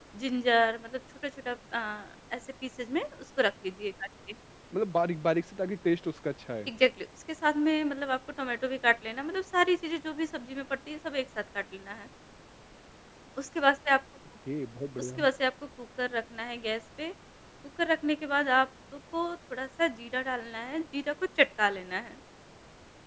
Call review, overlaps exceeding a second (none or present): none